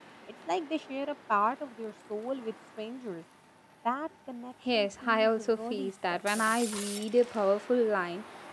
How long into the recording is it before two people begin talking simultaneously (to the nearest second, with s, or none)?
5 s